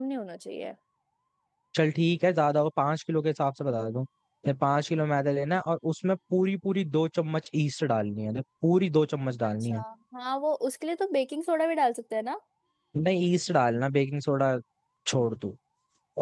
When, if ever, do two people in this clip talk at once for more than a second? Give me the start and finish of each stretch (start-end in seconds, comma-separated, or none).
none